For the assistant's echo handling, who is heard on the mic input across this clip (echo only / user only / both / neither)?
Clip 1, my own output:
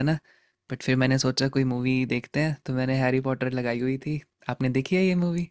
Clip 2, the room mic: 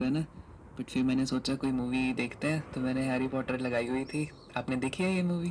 echo only